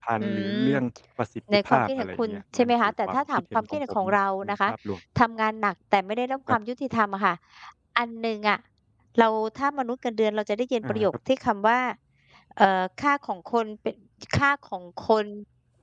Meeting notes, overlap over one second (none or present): present